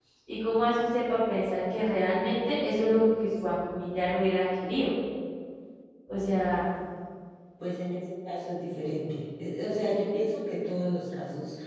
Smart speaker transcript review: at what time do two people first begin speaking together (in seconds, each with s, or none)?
none